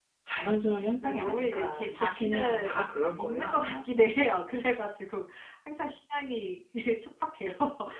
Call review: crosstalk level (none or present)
present